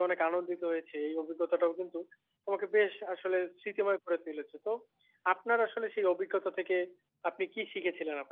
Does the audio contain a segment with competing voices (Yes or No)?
No